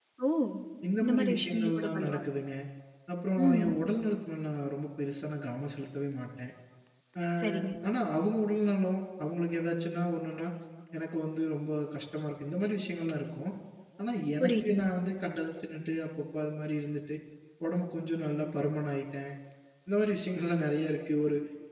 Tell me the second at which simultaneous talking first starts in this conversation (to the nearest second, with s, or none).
1 s